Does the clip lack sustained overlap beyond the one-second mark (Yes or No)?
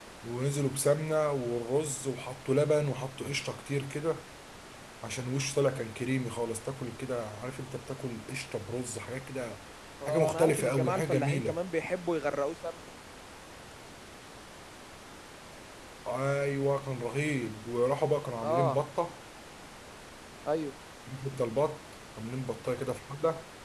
No